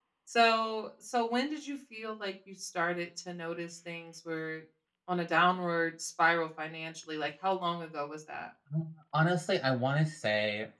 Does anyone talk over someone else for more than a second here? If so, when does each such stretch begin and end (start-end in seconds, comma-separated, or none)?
none